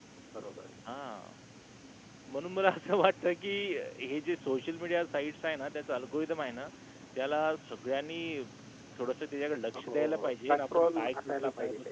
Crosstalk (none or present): present